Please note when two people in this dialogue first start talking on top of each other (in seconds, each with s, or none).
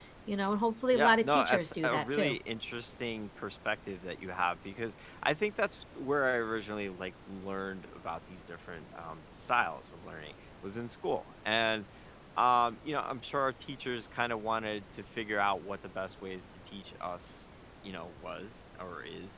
0.9 s